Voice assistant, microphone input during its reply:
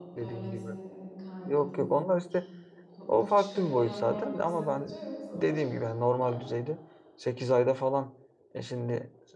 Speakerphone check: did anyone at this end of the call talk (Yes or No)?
Yes